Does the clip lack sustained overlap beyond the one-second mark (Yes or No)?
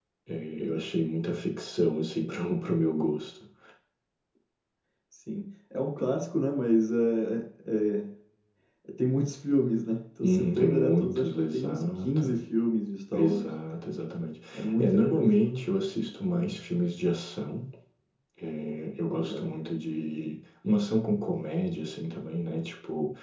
No